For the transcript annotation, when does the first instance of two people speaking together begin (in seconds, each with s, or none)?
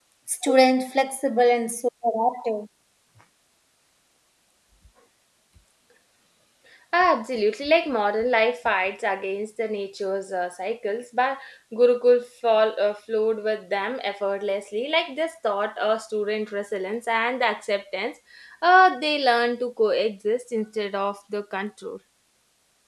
none